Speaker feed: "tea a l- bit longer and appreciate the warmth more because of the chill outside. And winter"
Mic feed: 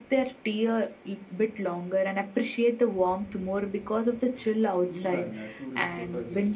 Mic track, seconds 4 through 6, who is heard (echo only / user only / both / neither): both